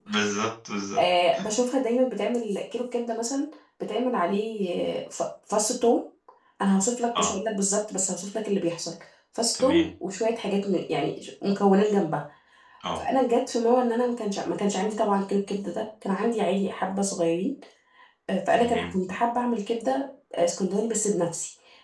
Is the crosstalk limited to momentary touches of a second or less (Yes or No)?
Yes